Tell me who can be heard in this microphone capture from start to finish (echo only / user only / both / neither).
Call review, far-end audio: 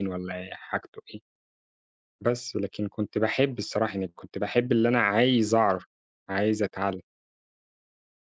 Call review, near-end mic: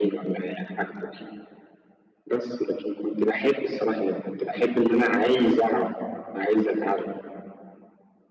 echo only